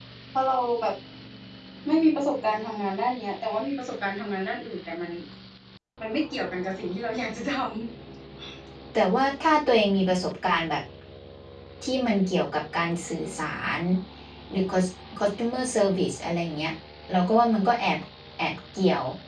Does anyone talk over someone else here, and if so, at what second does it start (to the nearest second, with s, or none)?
none